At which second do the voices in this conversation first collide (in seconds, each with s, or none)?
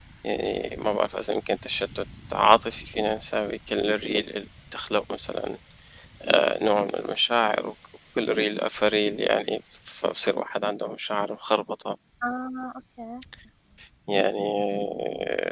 none